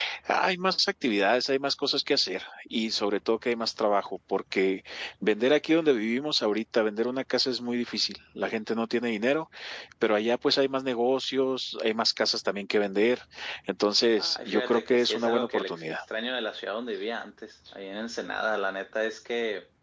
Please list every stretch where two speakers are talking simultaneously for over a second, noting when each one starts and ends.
14.2-16.0

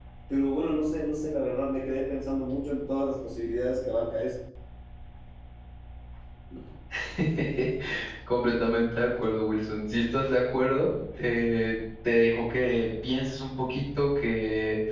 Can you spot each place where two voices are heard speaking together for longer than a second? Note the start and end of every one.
none

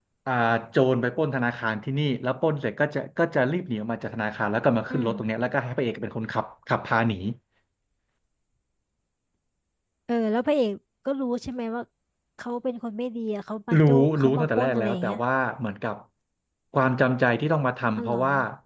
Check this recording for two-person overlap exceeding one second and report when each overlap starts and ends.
13.8-15.2

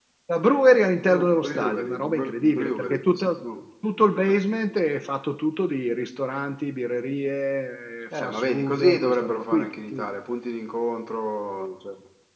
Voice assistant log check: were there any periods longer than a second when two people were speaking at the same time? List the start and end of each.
0.9-3.5, 8.1-10.0

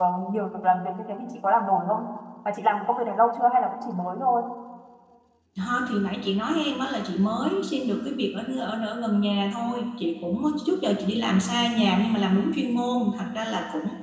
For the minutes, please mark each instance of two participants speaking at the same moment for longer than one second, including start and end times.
none

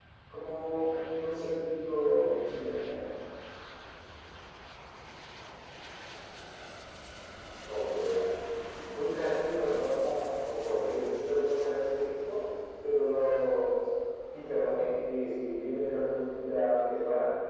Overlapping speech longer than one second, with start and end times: none

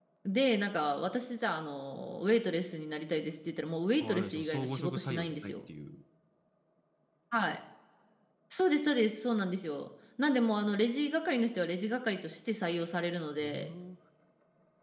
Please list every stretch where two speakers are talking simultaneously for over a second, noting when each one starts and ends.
4.0-5.5

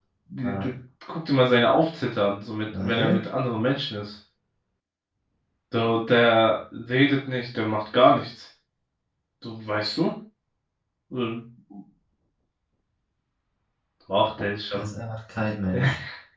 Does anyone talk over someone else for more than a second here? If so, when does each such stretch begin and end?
none

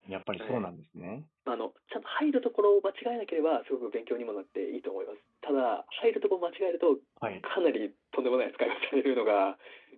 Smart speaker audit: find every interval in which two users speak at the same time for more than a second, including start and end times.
none

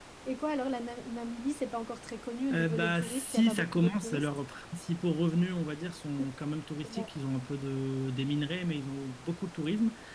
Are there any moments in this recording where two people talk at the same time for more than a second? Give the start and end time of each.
2.5-4.3

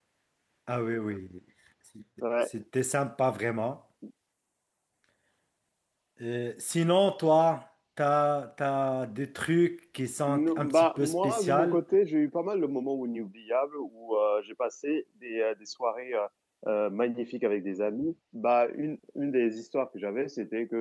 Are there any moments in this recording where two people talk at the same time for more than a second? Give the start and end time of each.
10.3-11.8

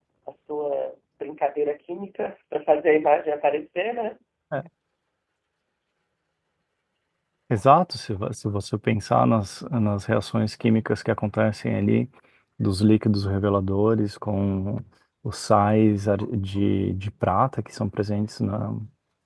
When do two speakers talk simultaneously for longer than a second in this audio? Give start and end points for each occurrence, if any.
none

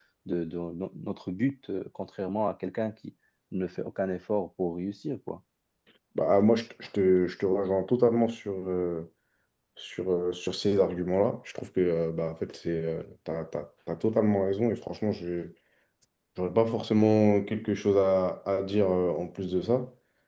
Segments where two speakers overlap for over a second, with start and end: none

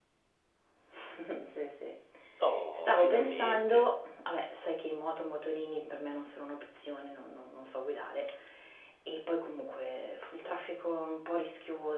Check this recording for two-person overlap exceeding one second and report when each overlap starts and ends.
2.8-4.0

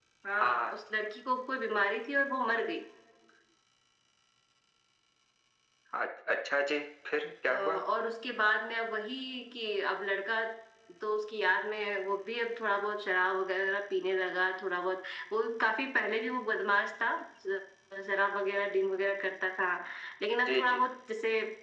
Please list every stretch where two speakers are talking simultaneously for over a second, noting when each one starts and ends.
none

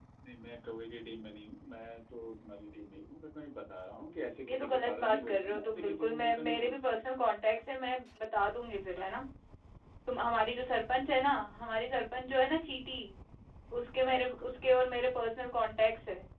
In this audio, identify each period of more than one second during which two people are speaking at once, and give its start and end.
4.5-7.0

